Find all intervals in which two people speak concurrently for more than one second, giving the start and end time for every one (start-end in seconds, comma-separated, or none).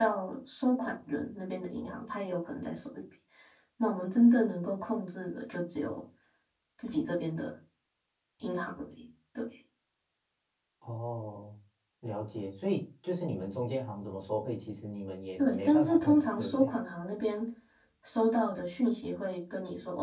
15.4-16.7